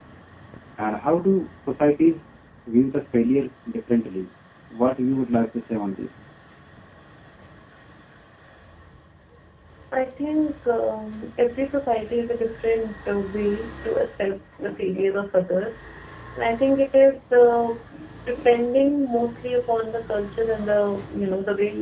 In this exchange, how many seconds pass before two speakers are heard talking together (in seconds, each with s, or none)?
none